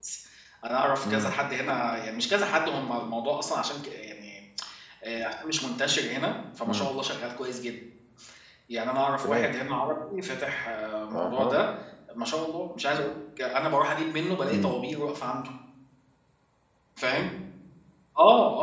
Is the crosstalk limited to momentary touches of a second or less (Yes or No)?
Yes